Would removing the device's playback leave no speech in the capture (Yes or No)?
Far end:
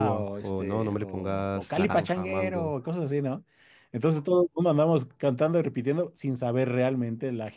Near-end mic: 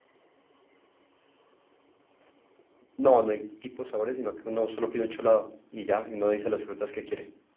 No